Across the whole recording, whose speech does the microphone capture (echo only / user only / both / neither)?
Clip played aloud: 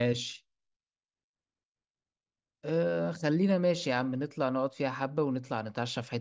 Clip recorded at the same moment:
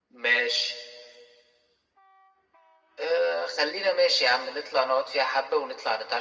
echo only